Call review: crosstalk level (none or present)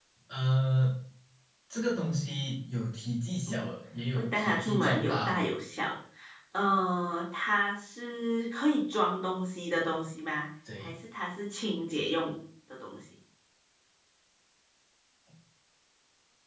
present